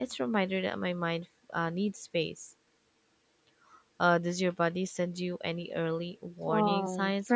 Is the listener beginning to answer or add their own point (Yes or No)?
Yes